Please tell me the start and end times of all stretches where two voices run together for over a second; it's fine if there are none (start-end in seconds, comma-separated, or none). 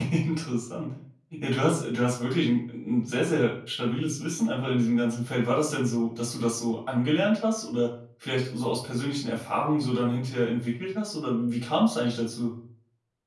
none